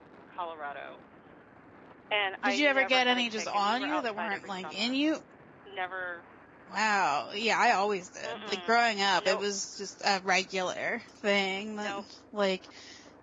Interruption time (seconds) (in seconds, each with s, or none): 2.4 s